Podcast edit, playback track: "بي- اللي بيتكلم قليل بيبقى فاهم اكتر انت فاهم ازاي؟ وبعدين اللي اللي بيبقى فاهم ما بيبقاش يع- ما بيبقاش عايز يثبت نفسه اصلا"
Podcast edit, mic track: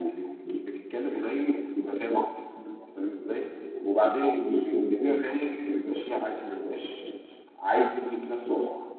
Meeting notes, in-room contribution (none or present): none